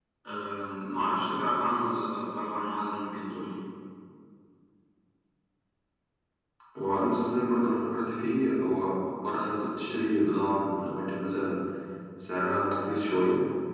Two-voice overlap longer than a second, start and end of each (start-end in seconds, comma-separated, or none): none